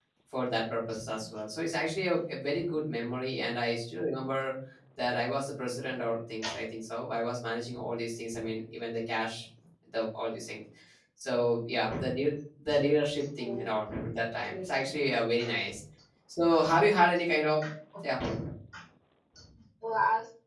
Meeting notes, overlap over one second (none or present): none